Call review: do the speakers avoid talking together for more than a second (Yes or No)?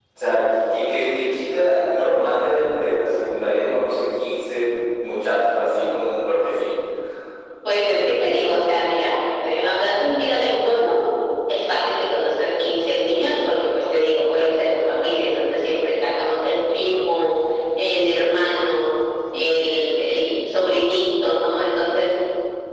Yes